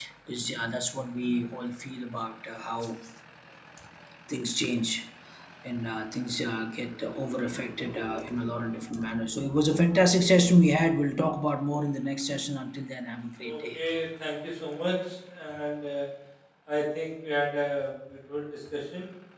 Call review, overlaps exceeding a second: none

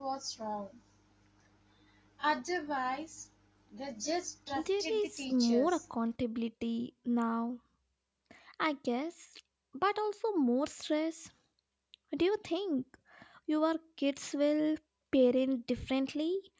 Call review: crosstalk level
present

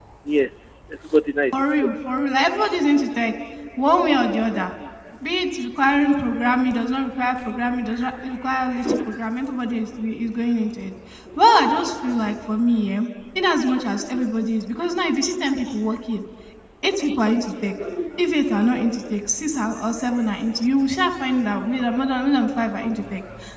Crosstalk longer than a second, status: none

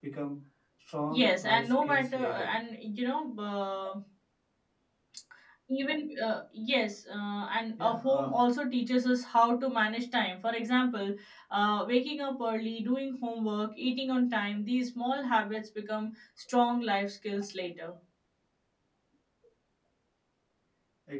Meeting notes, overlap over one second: present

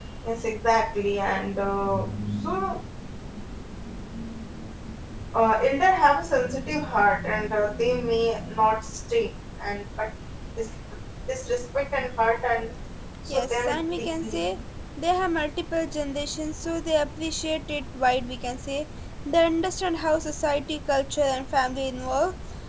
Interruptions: present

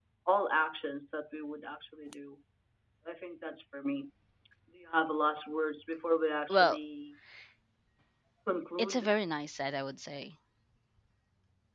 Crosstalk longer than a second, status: none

